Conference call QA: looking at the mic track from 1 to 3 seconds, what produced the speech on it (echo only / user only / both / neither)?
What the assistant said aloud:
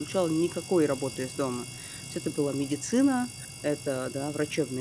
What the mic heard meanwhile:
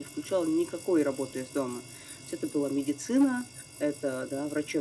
echo only